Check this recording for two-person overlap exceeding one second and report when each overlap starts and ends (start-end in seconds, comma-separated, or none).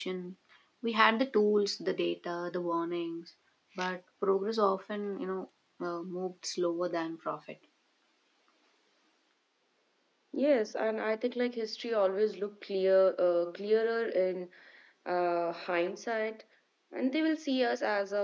none